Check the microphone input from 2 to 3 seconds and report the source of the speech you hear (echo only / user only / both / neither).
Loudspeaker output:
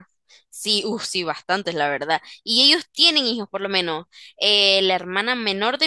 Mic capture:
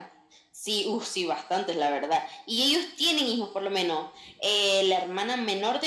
echo only